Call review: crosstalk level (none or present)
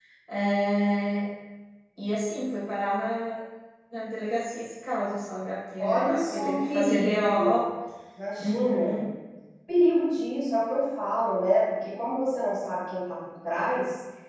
present